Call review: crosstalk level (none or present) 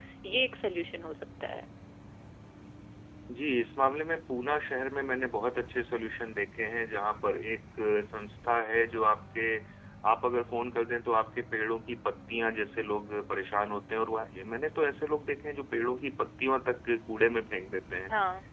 none